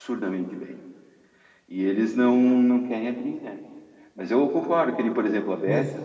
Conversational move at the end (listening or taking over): listening